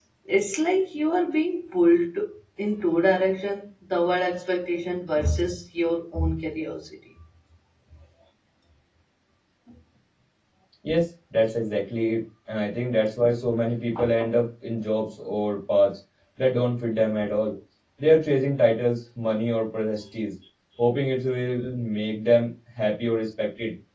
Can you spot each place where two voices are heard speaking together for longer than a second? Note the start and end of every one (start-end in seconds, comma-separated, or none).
none